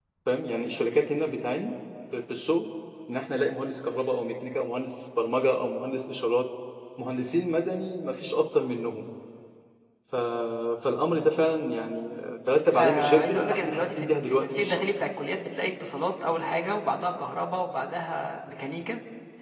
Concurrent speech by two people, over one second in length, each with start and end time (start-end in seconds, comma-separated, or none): 12.7-14.8